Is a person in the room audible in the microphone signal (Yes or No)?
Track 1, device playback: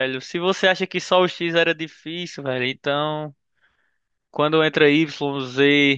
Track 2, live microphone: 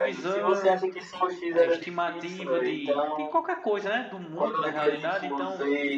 Yes